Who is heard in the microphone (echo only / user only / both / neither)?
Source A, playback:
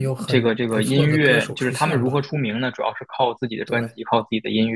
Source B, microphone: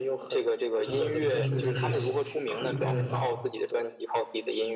both